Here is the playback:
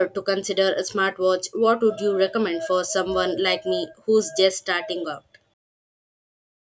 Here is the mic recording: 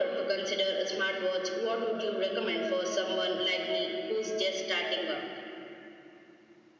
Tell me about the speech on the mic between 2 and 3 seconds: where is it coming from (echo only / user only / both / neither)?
echo only